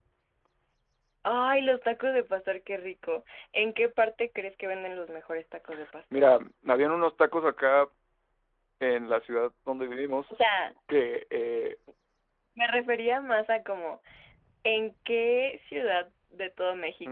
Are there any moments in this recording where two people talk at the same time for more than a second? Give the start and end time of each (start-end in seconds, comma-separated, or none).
none